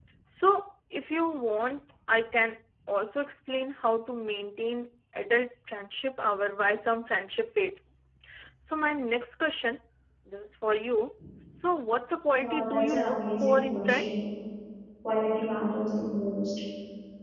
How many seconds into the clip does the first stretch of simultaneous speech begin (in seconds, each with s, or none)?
12.3 s